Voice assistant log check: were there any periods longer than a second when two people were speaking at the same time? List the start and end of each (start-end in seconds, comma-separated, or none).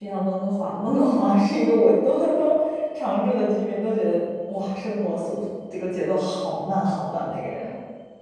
none